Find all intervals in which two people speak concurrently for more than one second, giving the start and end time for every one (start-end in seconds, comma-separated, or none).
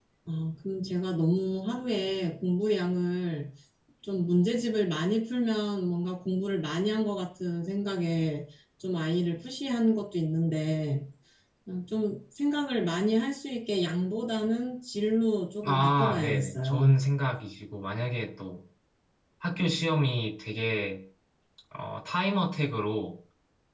15.6-17.0